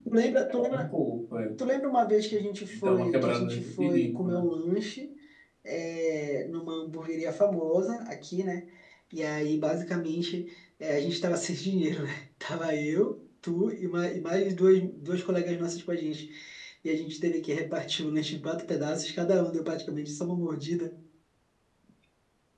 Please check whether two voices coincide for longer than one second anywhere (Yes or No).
Yes